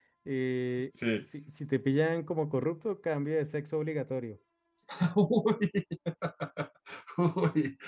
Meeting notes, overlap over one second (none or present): none